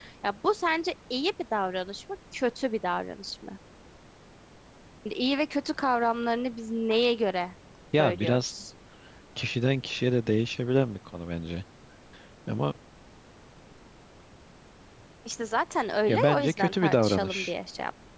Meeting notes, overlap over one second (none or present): present